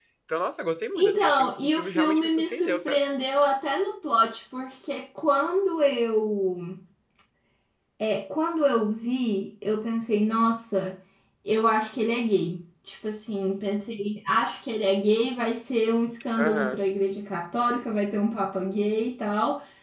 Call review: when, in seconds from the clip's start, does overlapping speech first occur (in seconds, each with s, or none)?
0.9 s